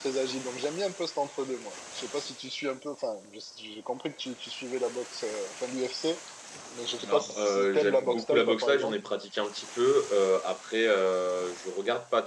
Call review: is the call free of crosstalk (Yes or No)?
No